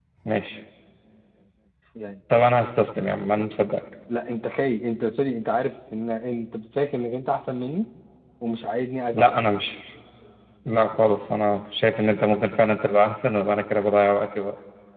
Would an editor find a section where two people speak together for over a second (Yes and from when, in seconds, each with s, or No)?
No